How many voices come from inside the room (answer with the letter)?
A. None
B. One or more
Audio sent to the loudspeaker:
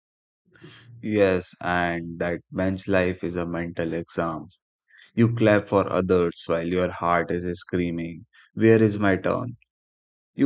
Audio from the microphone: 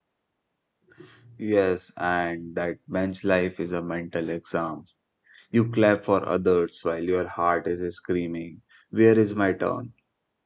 A